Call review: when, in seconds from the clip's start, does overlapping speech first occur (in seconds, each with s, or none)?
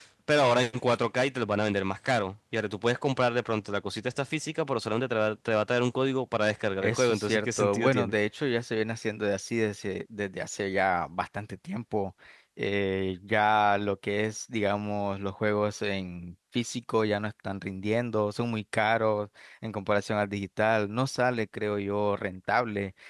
6.8 s